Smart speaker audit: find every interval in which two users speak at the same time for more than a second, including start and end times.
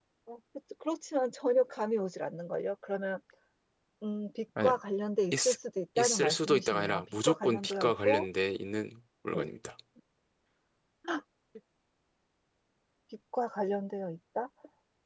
6.0-8.3

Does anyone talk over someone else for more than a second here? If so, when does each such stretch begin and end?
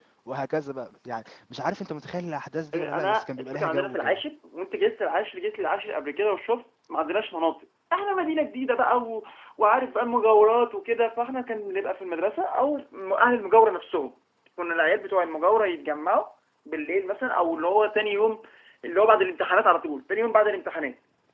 2.7-4.2

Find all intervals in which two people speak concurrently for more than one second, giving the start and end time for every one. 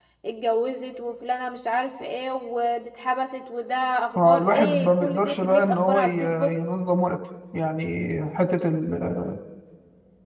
4.2-6.5

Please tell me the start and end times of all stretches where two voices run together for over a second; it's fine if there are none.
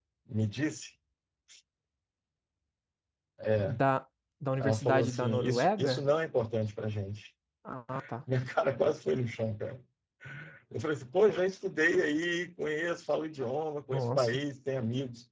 4.6-6.0

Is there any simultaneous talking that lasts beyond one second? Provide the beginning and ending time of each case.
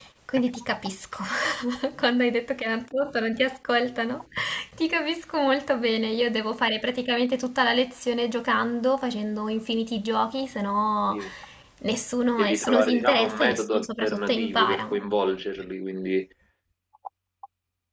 12.4-14.8

